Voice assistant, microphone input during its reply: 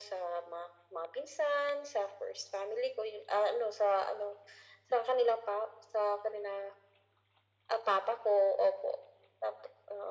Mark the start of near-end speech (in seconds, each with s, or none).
none